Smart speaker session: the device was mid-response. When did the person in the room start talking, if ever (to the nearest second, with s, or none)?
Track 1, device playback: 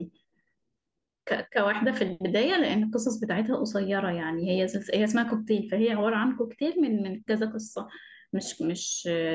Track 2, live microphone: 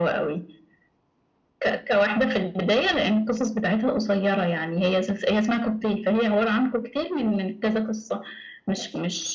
none